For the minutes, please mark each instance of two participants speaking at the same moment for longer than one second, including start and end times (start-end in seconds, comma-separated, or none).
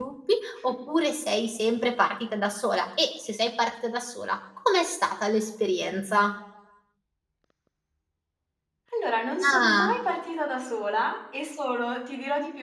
none